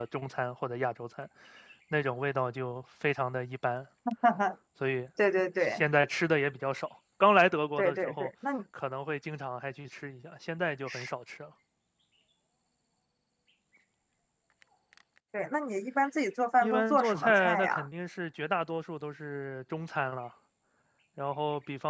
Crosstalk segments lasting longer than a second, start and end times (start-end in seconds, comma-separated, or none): 16.6-17.9